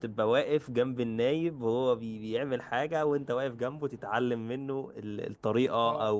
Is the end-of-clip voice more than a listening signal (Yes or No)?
No